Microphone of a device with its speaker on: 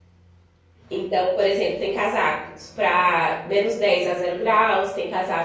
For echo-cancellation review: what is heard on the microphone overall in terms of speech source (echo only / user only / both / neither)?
user only